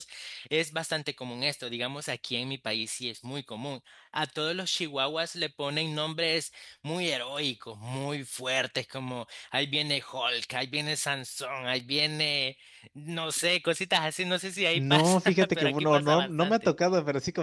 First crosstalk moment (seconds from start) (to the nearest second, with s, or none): 15 s